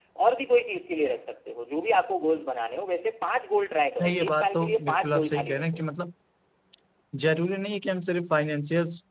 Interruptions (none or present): present